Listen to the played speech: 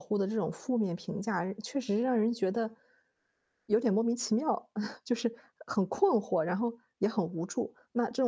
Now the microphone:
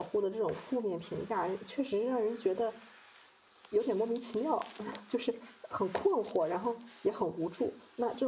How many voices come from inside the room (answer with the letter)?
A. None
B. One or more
A